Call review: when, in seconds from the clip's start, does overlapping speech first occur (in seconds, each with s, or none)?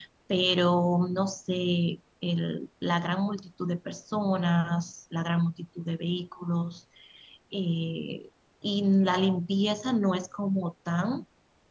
none